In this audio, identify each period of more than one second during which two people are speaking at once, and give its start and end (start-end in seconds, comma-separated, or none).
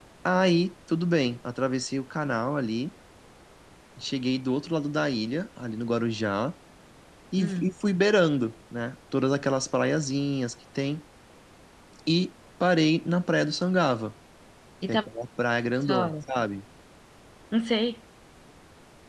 none